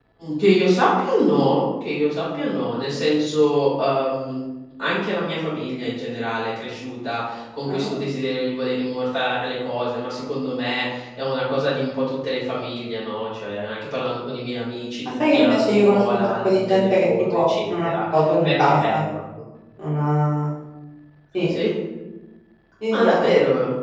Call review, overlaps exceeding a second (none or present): present